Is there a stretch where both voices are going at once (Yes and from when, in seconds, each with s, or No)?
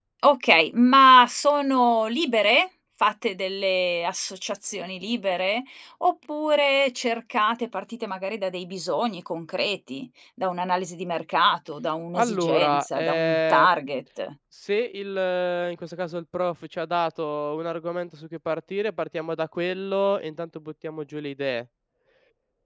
Yes, from 12.1 s